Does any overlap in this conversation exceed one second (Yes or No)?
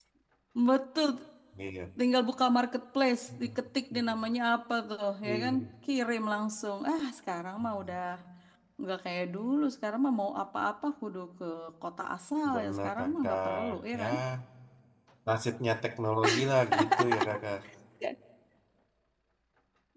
Yes